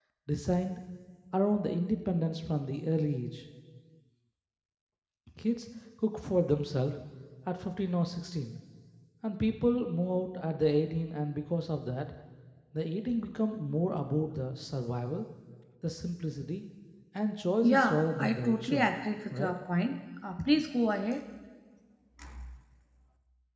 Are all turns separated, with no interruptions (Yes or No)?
No